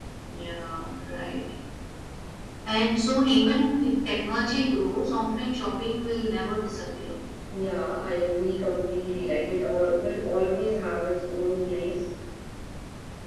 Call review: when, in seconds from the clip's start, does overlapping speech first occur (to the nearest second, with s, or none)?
none